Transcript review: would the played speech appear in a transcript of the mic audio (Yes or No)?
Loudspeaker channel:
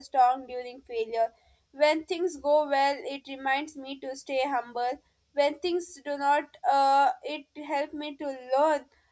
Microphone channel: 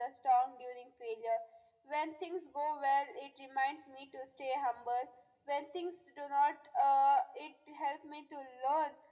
Yes